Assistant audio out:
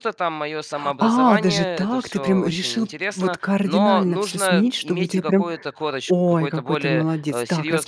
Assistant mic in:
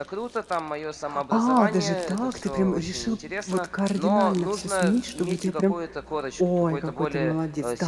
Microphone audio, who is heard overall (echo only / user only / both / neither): echo only